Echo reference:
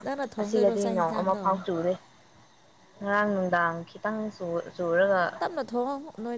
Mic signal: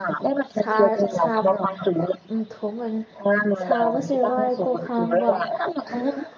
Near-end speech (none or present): present